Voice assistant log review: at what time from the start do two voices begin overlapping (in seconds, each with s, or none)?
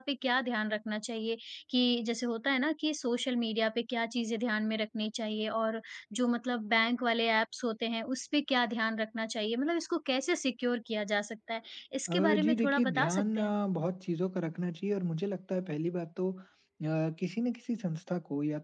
12.1 s